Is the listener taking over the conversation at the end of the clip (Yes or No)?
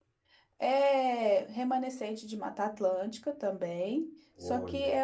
No